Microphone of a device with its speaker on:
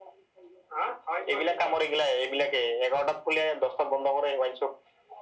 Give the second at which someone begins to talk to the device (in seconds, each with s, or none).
none